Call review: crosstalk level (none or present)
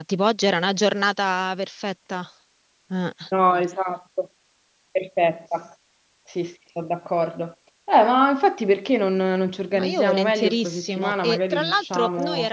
present